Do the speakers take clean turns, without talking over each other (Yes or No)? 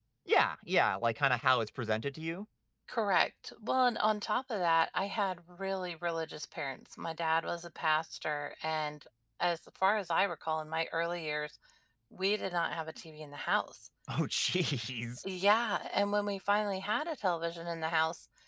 Yes